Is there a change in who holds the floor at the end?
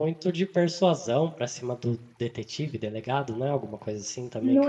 Yes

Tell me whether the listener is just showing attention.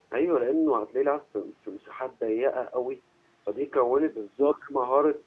Yes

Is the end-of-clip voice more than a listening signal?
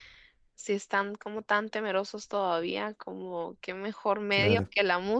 No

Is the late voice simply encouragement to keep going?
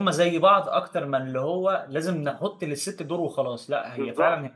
No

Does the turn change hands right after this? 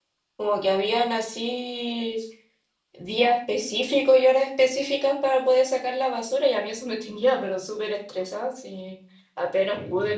No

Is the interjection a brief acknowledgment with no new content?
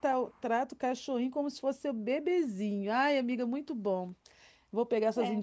Yes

